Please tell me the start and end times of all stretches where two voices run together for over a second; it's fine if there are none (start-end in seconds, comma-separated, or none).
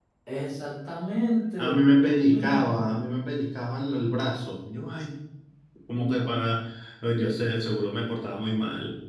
1.6-2.8